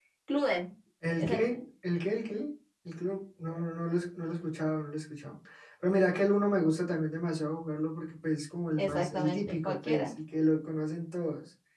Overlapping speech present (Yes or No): Yes